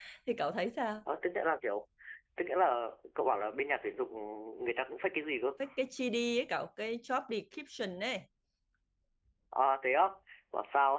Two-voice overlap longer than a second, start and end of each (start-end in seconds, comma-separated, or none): none